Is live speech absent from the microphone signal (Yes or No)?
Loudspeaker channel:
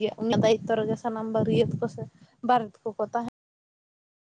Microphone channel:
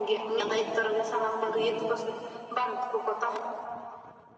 Yes